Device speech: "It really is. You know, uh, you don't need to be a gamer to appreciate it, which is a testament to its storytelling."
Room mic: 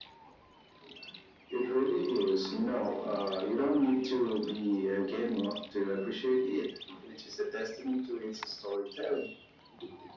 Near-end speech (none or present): none